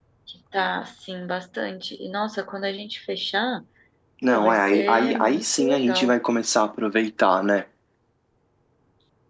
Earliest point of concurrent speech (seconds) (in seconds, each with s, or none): 4.3 s